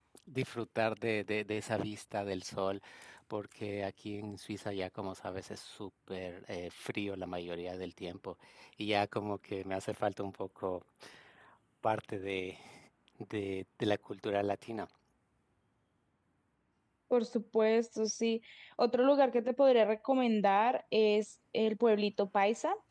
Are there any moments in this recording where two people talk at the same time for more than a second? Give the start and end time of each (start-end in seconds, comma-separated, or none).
none